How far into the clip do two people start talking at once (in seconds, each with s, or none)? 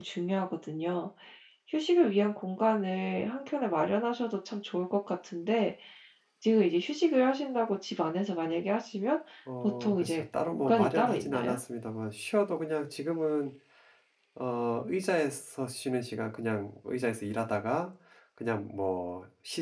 9.8 s